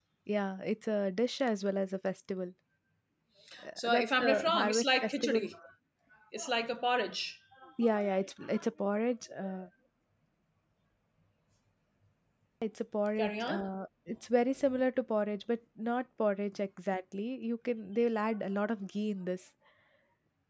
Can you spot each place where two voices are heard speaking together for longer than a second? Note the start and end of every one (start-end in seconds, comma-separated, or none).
3.8-5.5